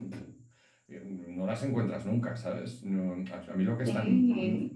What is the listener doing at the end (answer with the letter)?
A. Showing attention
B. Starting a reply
A